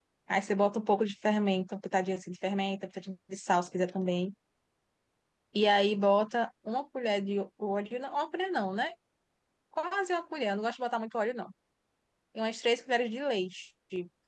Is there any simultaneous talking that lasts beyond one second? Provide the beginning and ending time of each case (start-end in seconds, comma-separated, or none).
none